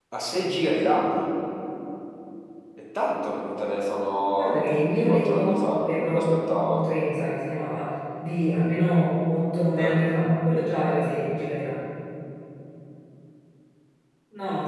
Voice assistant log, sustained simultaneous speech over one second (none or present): present